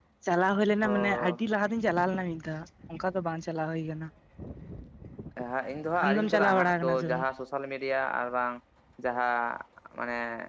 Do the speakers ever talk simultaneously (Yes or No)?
Yes